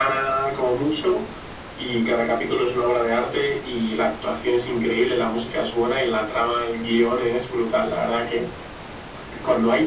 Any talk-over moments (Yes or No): No